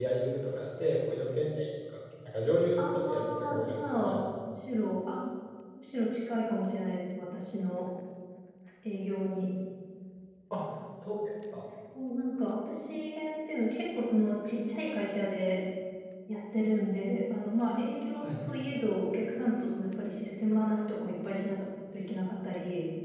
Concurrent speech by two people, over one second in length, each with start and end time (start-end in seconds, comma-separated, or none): 2.8-4.2